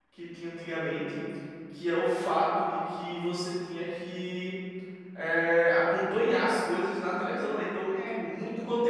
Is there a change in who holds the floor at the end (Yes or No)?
No